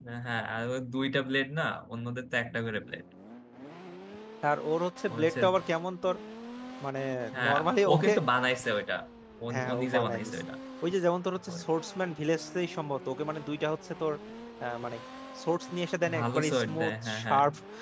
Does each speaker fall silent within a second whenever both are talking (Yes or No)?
No